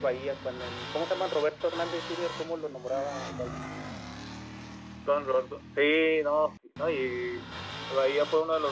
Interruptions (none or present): none